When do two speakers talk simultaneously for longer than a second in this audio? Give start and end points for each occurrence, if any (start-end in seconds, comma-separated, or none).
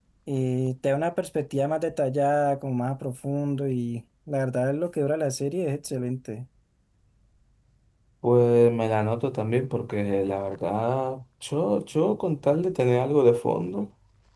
none